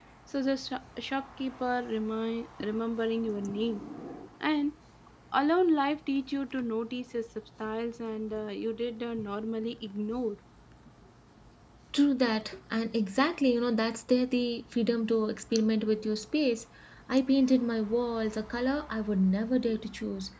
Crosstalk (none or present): none